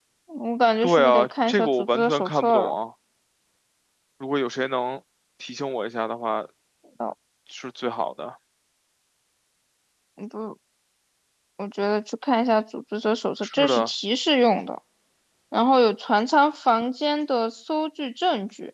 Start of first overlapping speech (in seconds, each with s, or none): 0.8 s